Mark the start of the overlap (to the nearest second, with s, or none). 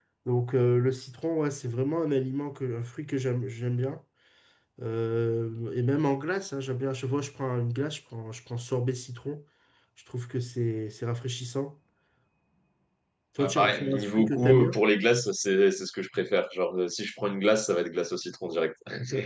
13 s